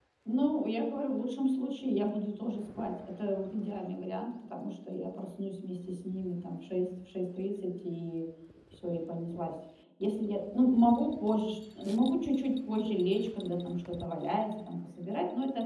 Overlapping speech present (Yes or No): No